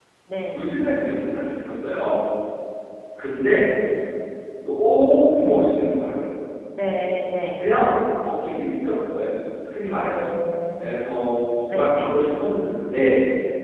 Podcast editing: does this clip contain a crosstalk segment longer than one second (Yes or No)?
No